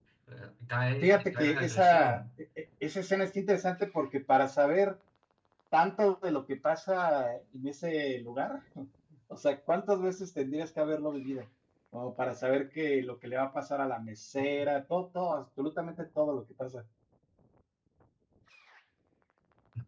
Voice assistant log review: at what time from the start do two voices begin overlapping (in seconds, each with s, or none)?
1.0 s